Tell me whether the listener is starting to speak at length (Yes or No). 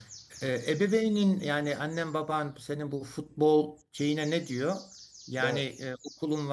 No